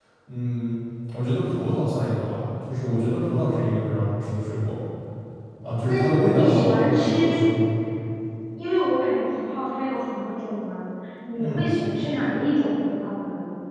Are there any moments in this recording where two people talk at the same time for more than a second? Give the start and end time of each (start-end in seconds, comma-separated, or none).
5.8-7.4